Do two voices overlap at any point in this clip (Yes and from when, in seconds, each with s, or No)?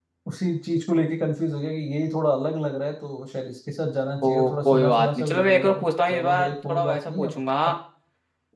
Yes, from 4.2 s